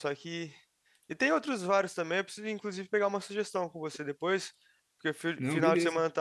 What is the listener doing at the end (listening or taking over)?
listening